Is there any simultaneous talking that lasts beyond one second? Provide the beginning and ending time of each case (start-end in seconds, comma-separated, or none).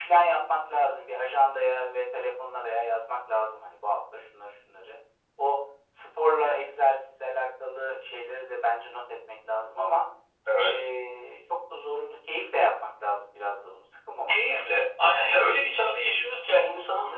none